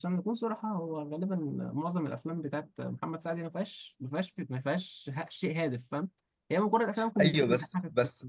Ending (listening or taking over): taking over